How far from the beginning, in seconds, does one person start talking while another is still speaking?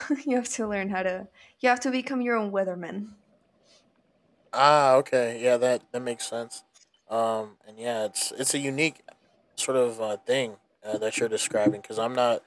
none

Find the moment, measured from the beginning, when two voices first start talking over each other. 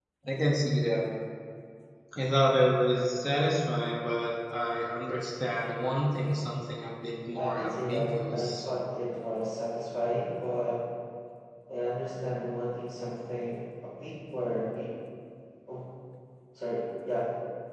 7.3 s

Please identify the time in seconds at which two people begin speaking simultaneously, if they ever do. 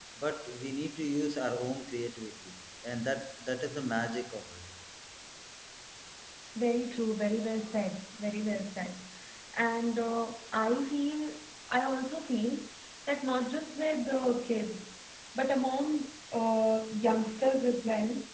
none

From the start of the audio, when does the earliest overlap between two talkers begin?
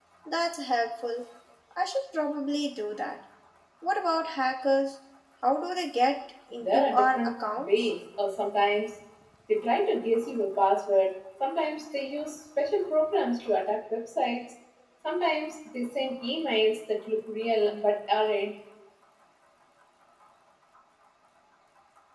6.6 s

